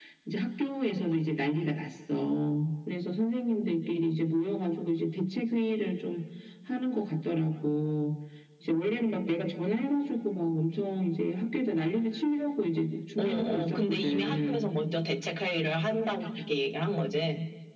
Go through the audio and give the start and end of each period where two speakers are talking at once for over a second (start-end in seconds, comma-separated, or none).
13.2-14.7